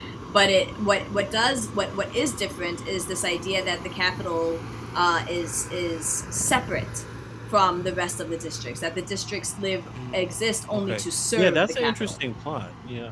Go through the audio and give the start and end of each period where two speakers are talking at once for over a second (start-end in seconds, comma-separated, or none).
10.7-12.2